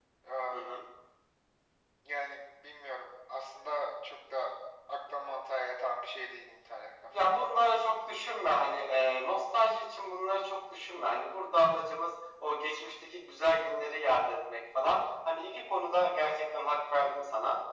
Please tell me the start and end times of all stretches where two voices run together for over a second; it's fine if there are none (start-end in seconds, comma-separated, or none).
none